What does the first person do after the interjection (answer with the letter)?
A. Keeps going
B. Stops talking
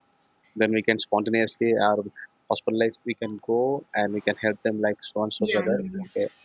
B